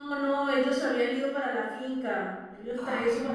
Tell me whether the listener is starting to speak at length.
No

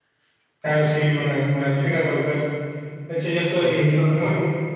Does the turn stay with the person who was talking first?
Yes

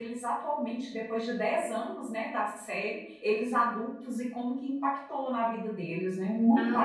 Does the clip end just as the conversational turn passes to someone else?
Yes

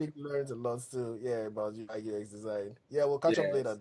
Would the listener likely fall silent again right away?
No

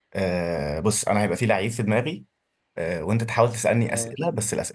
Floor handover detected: No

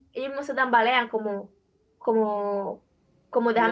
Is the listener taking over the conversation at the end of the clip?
Yes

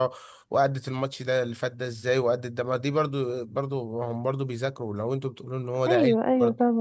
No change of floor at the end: No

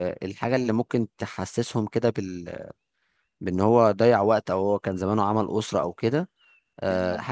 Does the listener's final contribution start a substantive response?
No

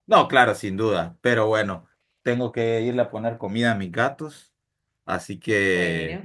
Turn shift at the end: No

